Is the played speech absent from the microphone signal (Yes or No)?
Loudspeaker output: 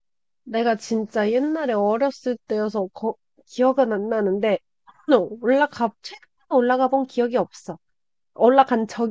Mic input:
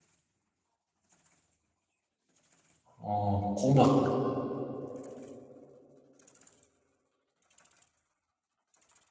Yes